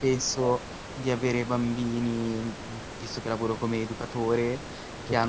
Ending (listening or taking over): listening